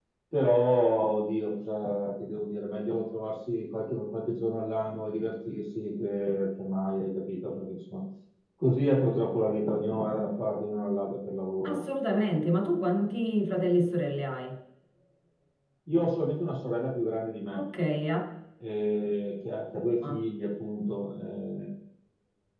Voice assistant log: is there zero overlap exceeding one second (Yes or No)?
Yes